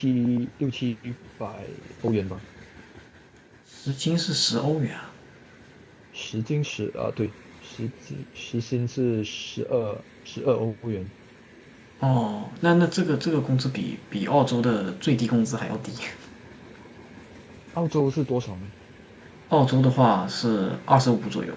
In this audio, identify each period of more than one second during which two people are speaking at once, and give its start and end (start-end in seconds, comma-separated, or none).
none